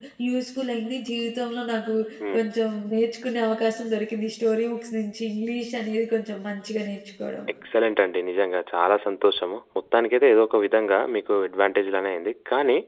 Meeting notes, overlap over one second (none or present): none